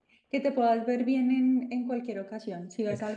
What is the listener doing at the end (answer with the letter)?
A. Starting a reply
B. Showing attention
B